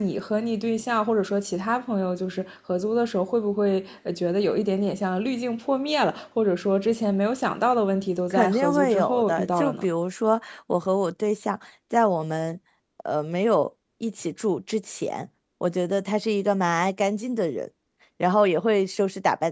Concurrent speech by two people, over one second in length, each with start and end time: 8.3-9.9

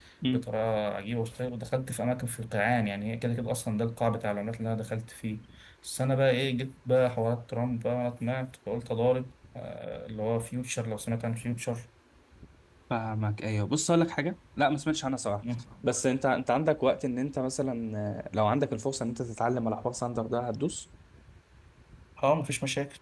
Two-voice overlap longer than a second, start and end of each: none

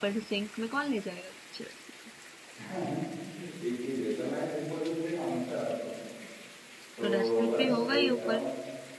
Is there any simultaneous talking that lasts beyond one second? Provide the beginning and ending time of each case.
7.0-8.4

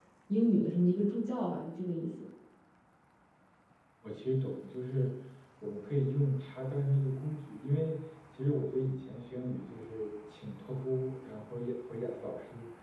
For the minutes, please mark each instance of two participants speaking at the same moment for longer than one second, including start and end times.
none

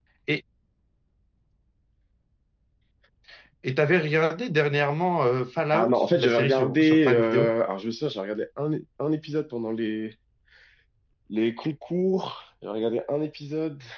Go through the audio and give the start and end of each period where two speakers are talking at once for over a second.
5.7-7.5

